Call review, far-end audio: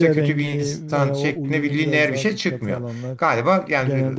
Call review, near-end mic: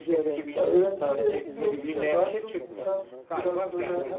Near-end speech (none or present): present